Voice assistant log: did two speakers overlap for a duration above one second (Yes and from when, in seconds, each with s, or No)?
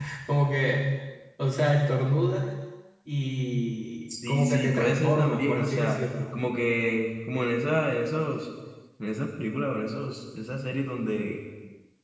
Yes, from 4.1 s